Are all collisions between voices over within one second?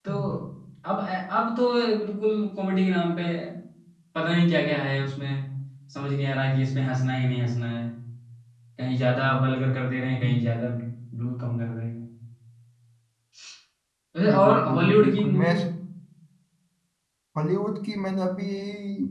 No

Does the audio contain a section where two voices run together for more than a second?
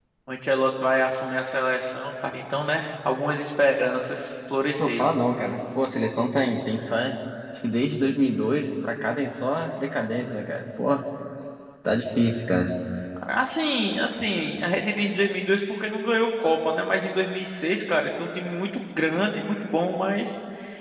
No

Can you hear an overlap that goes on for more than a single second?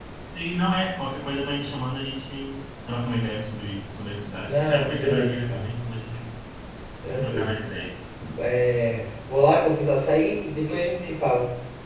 Yes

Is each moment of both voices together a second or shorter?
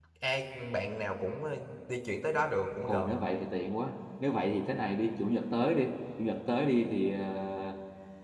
Yes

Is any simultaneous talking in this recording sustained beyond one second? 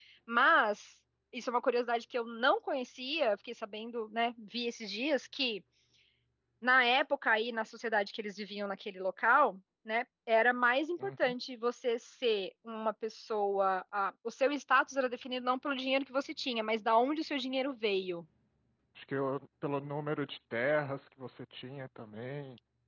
No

